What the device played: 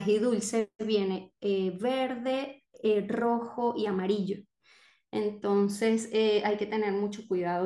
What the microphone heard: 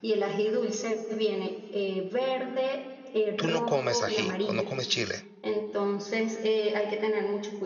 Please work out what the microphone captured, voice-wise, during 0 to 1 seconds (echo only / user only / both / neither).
echo only